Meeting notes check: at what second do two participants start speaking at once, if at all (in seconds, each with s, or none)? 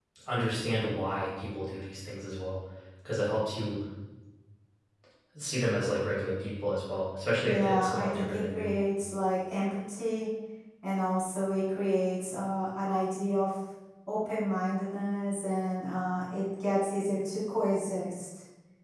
7.4 s